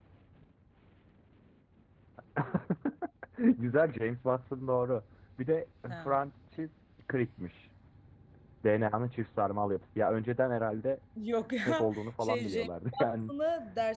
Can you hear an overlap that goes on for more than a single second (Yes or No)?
Yes